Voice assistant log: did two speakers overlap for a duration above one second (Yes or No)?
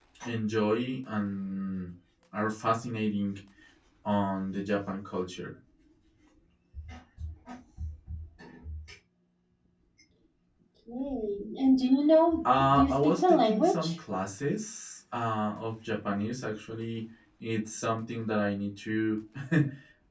Yes